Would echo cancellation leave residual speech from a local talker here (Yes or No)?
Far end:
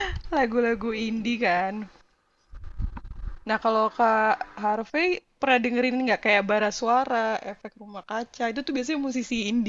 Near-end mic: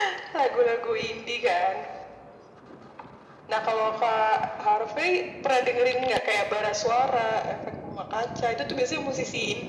No